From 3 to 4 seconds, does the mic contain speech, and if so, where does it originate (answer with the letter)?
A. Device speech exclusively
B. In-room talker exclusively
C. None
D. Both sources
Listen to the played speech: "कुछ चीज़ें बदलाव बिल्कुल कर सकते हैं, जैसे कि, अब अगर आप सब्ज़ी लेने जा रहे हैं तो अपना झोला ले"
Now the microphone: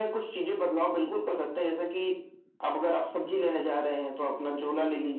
A